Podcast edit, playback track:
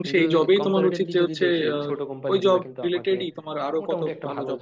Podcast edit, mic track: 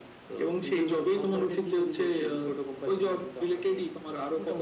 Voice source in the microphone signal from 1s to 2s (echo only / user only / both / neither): echo only